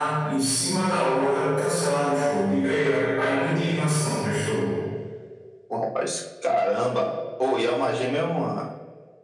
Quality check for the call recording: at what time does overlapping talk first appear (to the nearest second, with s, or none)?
none